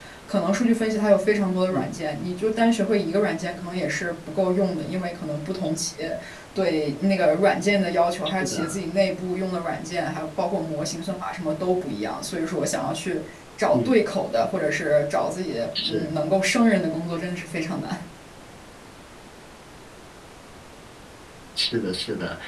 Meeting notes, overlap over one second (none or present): none